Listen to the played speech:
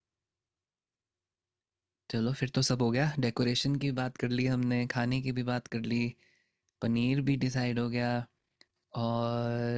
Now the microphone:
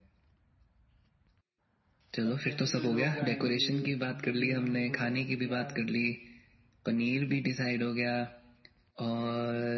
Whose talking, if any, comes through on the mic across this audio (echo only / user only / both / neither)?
both